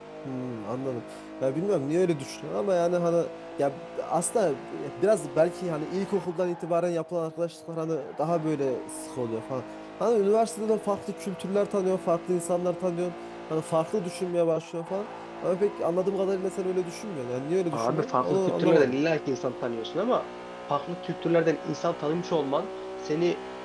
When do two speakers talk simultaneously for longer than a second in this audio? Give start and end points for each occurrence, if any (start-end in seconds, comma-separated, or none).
17.7-19.0